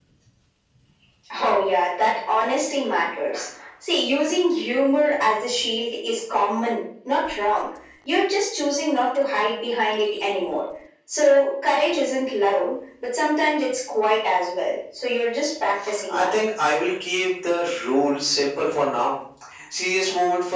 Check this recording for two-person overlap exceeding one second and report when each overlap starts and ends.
none

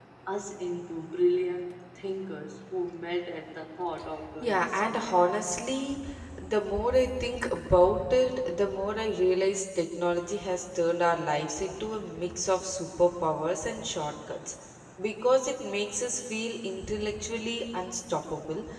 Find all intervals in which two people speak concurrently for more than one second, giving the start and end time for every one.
4.4-5.6

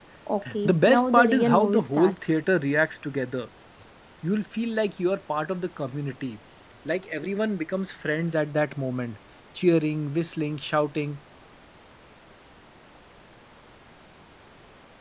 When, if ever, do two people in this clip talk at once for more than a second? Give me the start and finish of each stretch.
0.6-2.3

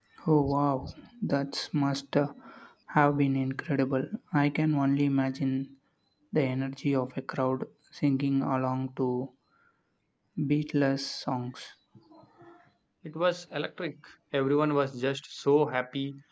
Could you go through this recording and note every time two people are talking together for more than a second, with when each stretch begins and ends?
none

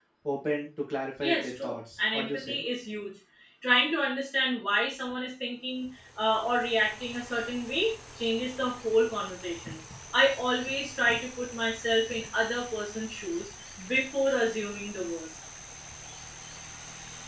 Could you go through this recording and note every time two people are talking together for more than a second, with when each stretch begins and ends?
1.2-2.6

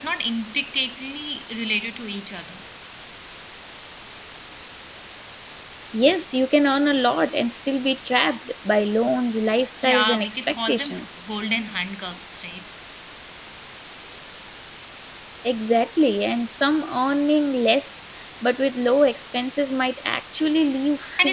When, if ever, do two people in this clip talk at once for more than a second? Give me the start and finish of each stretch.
9.8-11.0

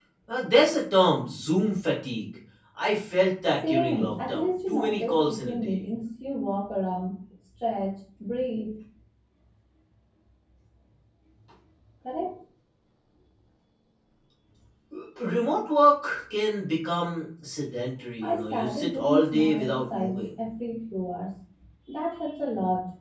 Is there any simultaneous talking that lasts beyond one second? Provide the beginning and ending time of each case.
3.7-5.8, 18.2-20.2

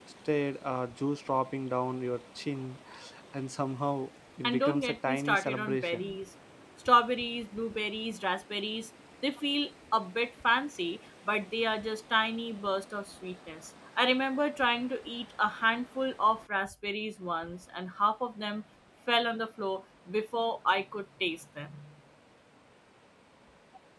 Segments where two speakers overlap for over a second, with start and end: 4.4-6.2

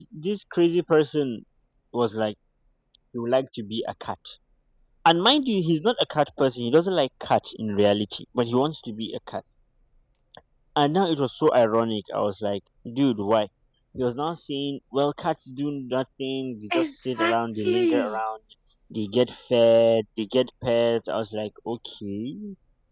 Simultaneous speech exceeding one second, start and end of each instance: 16.7-18.1

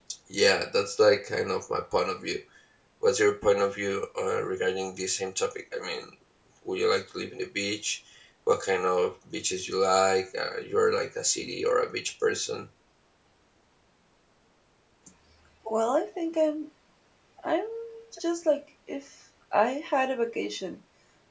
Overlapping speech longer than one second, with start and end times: none

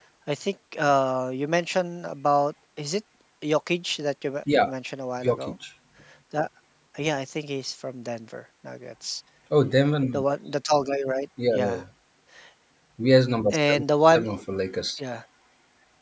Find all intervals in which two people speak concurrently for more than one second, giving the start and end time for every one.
none

